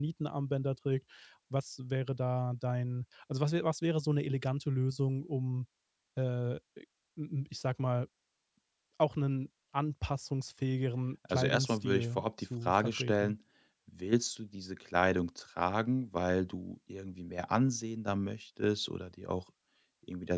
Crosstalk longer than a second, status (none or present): present